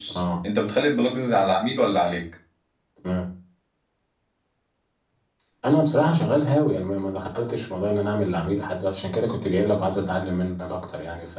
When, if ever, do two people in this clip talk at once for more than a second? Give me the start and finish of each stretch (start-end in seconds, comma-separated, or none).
none